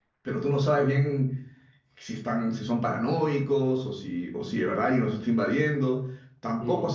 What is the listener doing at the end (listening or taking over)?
listening